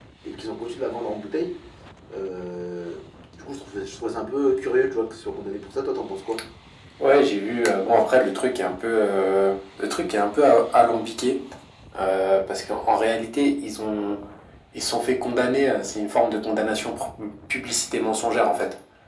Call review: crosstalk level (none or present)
none